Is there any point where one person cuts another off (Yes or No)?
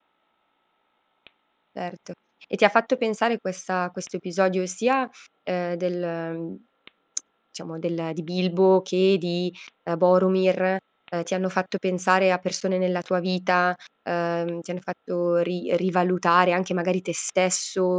No